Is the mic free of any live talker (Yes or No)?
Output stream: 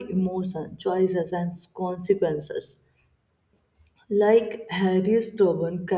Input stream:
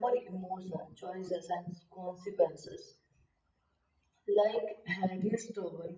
Yes